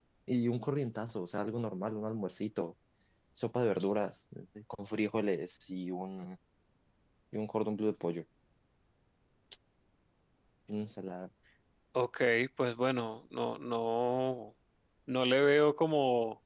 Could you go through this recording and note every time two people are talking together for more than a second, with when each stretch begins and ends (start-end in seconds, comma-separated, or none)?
none